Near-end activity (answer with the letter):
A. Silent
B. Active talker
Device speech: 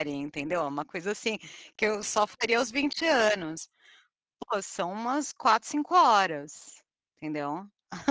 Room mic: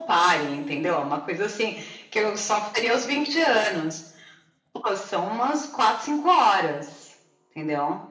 A